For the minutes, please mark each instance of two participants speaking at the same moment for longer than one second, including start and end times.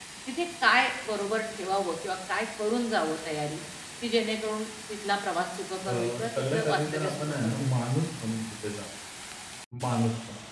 5.9-7.7

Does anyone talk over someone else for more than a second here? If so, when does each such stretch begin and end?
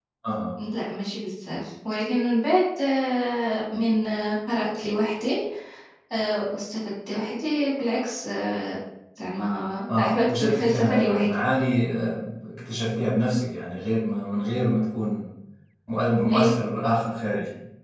10.0-11.3

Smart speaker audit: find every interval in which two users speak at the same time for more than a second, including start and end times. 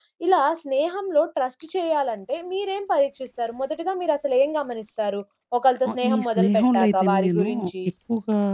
5.9-7.5

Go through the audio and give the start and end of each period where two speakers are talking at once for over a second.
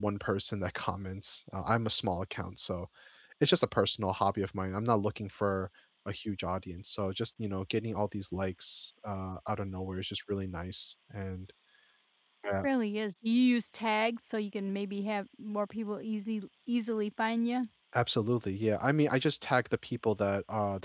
none

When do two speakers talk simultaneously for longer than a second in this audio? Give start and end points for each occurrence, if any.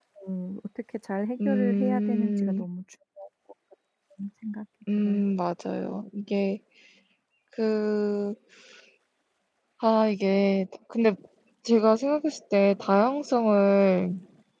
1.4-2.7

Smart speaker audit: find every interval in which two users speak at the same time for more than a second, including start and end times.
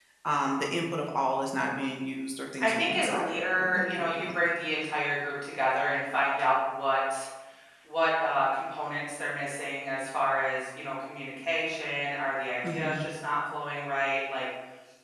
2.6-4.2

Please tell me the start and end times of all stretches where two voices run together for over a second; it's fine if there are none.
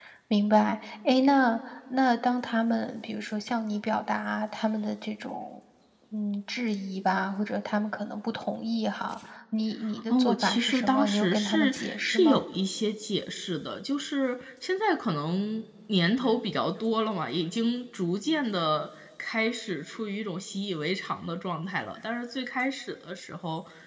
10.1-12.4

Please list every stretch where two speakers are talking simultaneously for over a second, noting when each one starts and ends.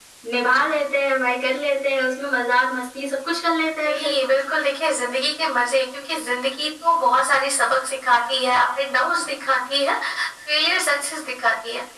none

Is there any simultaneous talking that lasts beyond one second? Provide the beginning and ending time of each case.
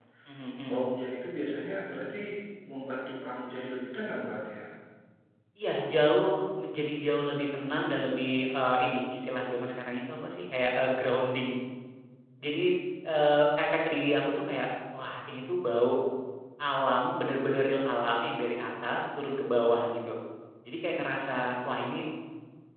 none

